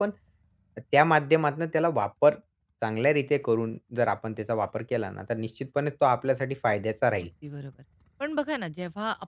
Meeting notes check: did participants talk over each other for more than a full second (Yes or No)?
No